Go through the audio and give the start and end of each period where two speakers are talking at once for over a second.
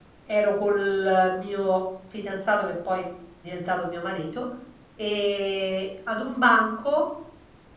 none

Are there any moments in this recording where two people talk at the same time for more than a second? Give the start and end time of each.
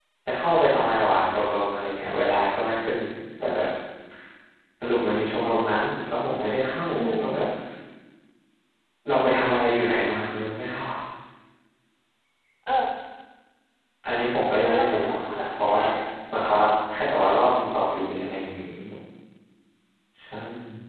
14.6-15.8

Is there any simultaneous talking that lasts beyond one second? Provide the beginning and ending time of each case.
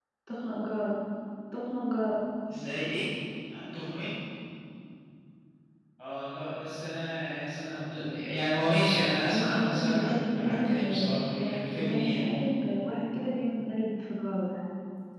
9.3-12.2

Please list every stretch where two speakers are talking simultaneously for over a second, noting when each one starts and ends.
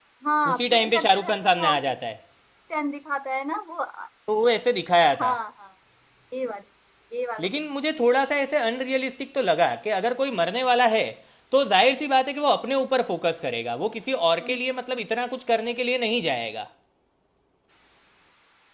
0.5-1.9

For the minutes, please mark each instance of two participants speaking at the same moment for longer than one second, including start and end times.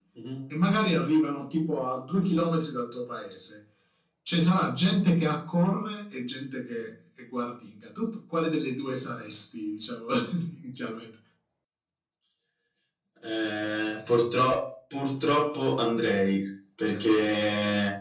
none

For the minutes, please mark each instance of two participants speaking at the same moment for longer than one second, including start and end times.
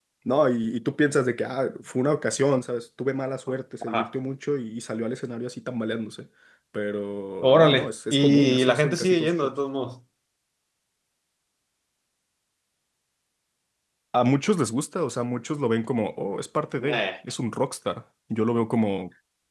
7.4-9.5

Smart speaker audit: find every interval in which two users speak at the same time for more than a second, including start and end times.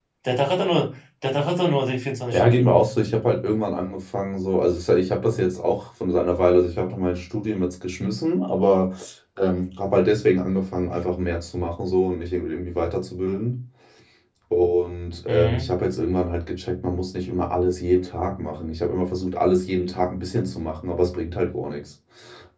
none

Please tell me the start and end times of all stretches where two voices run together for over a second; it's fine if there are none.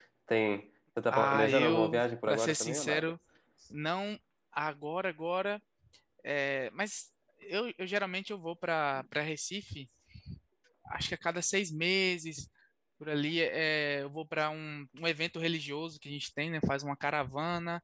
1.1-3.1

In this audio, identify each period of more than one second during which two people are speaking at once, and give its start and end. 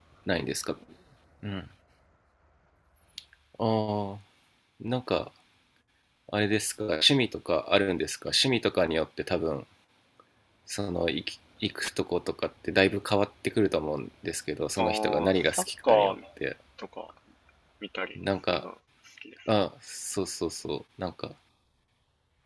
14.8-16.1

